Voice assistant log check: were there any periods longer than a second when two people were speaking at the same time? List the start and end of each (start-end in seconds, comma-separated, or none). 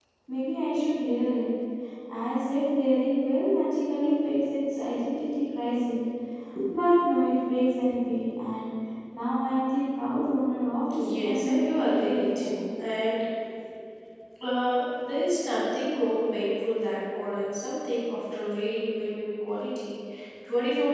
11.0-12.6